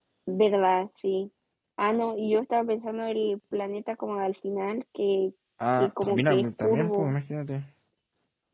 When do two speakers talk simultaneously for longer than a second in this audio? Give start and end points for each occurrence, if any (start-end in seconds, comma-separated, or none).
5.8-7.1